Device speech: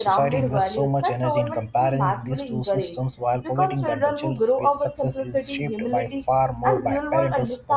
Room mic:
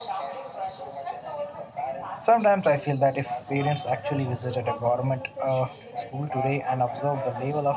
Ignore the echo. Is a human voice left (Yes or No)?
Yes